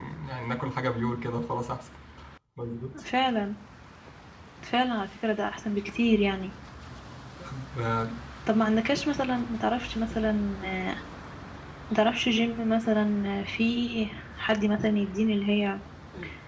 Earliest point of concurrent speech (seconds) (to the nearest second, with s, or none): none